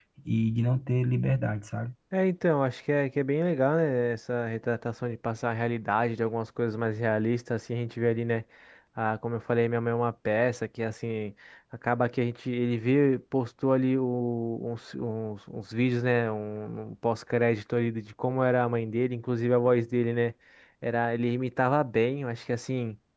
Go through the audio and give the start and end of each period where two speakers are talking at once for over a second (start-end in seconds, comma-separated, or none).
none